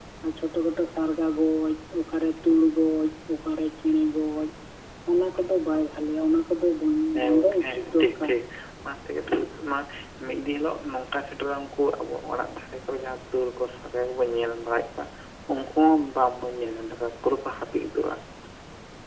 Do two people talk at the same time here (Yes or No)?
Yes